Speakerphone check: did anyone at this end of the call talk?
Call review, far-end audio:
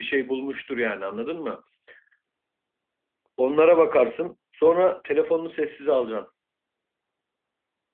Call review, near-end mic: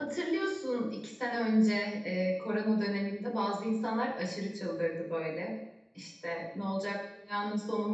Yes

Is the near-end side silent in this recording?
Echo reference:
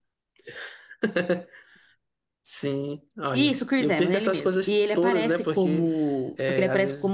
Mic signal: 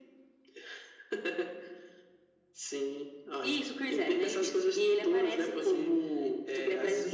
No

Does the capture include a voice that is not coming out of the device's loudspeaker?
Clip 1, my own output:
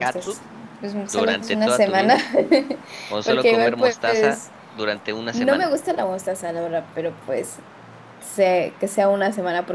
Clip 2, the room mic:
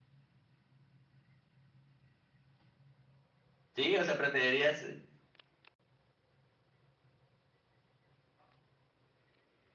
Yes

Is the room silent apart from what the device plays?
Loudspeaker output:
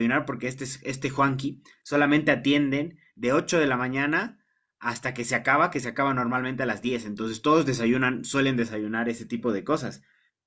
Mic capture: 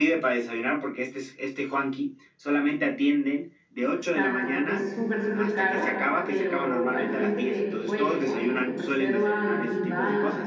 No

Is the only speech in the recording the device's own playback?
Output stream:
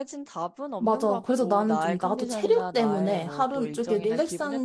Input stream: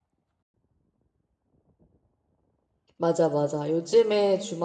No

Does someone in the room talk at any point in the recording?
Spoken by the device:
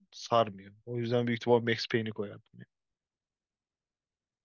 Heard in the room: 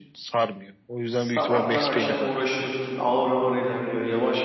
Yes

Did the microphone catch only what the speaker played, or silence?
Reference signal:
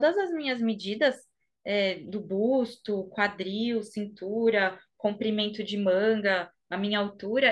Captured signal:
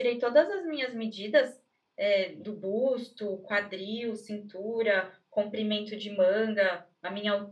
Yes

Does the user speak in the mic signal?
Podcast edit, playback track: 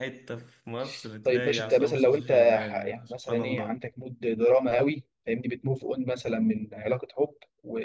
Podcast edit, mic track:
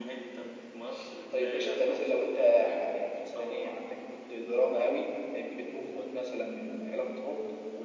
No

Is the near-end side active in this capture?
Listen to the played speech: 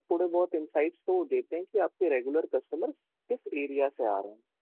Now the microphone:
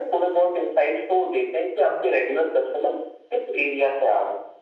No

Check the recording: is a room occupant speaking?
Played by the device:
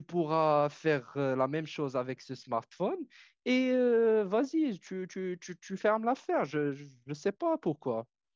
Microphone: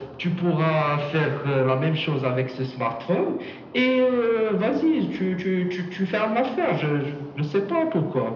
No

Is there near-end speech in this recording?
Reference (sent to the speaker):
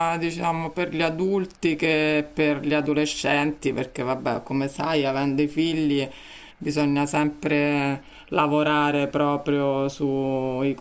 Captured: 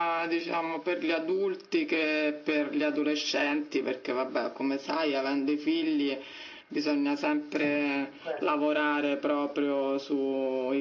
Yes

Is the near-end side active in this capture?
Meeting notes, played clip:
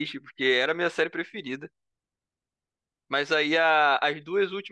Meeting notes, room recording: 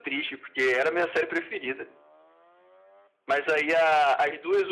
No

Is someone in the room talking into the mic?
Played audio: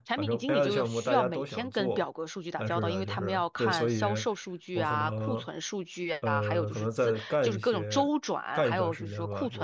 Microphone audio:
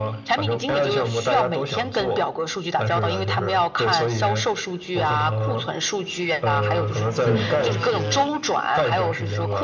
Yes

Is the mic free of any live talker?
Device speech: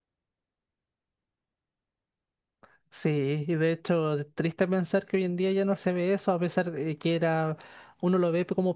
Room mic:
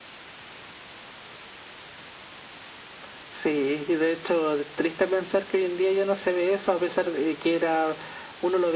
Yes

